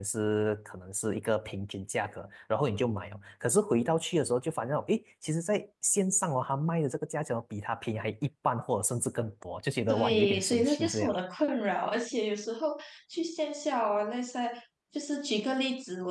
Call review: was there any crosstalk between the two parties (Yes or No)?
Yes